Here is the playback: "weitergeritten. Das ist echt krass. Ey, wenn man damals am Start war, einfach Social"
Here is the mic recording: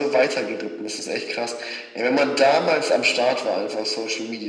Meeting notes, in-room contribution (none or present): none